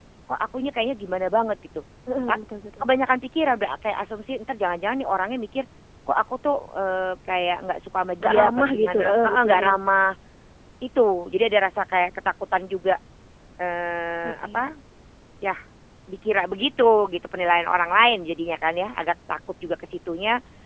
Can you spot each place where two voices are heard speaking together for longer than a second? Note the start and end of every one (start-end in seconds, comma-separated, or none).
8.2-9.7